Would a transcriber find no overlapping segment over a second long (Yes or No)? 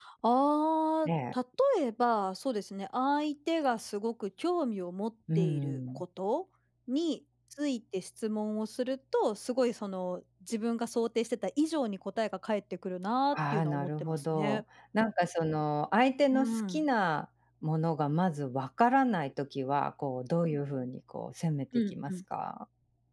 No